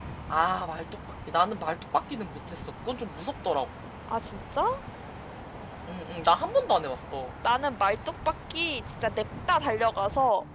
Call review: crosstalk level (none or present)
none